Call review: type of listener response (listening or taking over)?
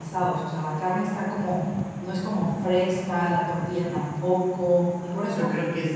taking over